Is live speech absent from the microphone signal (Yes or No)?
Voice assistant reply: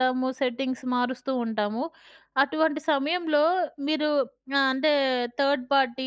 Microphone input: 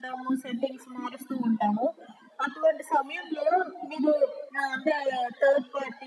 Yes